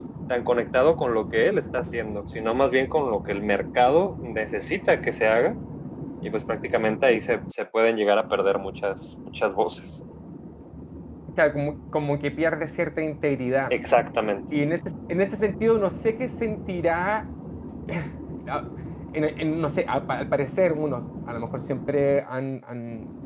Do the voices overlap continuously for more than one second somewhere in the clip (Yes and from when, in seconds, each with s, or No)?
No